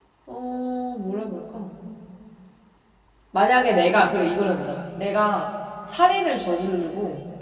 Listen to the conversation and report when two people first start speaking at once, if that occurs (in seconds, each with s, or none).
none